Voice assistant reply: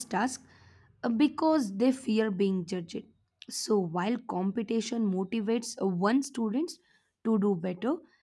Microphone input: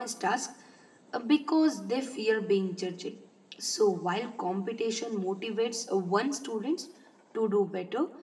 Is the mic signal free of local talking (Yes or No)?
Yes